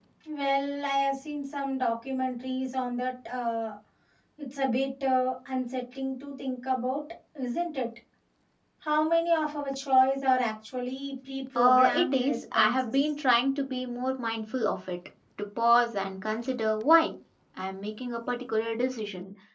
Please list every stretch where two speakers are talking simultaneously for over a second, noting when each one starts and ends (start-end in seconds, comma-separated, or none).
11.6-12.9